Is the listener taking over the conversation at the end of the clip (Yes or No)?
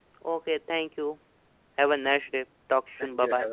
Yes